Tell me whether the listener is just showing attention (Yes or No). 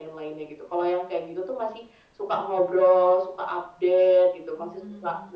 Yes